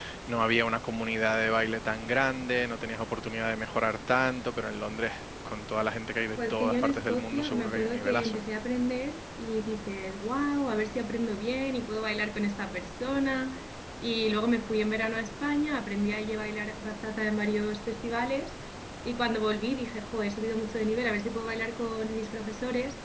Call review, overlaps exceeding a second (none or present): present